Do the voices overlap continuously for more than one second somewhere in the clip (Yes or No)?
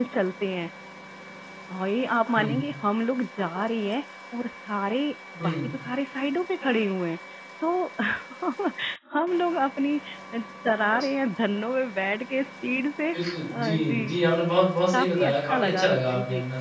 Yes